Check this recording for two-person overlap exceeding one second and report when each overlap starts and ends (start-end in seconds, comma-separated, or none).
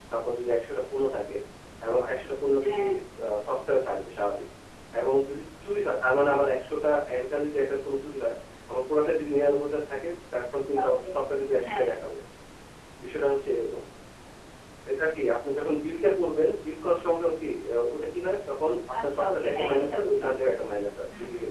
19.0-20.3